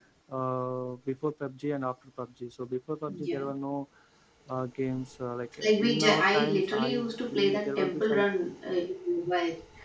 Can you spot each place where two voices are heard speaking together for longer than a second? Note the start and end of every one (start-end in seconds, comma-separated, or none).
5.6-8.2